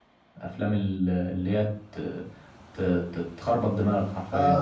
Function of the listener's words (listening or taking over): taking over